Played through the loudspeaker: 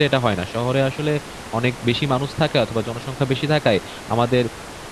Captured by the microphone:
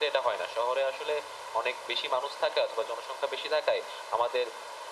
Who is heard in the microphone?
echo only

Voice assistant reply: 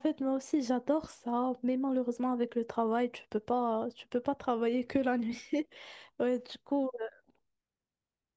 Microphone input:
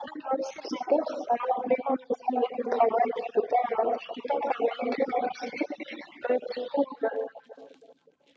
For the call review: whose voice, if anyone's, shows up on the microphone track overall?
echo only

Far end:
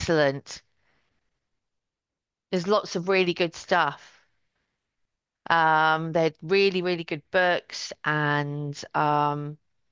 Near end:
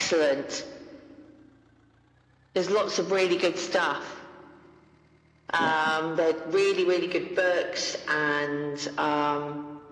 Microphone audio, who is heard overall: both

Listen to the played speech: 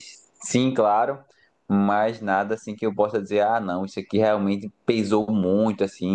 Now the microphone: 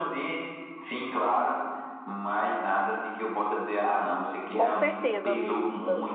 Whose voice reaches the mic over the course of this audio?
both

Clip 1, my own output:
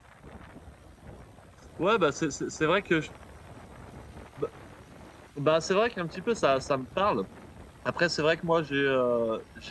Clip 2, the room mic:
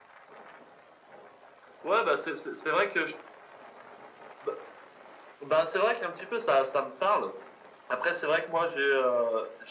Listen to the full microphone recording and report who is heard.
echo only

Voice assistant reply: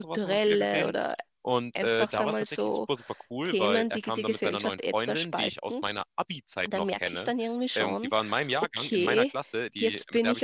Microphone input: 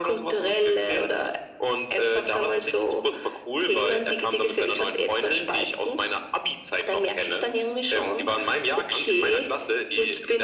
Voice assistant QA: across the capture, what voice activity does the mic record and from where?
echo only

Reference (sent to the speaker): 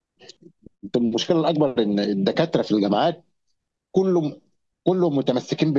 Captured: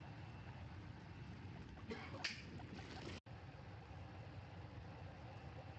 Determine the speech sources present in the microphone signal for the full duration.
neither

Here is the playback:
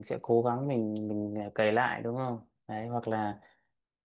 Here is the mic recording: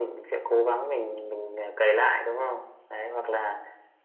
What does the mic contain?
echo only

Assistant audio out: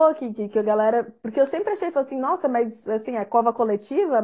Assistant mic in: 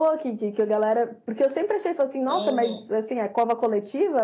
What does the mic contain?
both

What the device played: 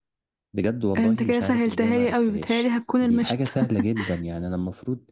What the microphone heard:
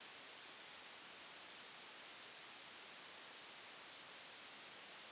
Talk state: neither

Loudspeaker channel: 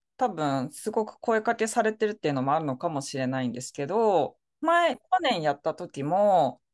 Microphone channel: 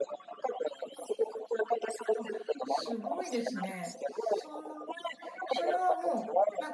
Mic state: both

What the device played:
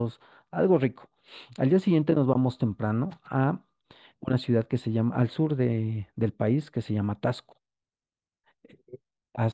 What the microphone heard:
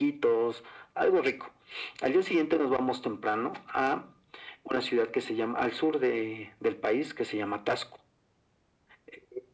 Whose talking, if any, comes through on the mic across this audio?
echo only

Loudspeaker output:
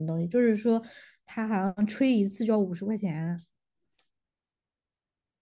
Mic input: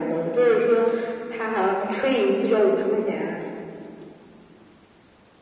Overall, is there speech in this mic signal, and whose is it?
echo only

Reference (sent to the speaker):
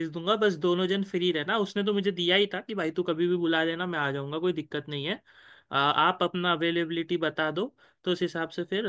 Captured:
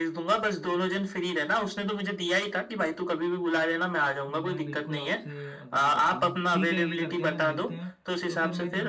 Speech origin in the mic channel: both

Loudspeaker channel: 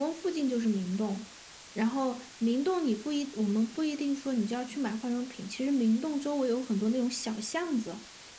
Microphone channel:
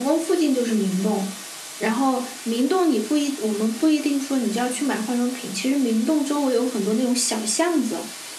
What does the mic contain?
echo only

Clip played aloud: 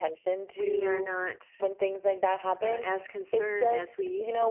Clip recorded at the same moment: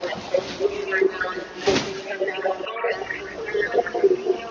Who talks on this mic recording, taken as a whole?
echo only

